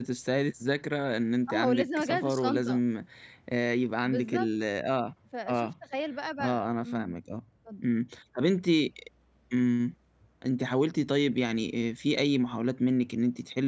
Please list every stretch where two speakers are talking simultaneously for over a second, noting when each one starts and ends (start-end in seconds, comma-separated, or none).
1.5-2.9